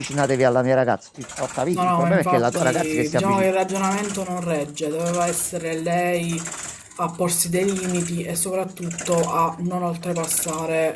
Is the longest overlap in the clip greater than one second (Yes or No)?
Yes